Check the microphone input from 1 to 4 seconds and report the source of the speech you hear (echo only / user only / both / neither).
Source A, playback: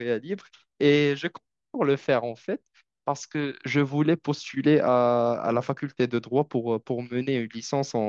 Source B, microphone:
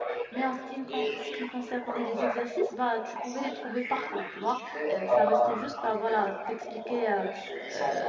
both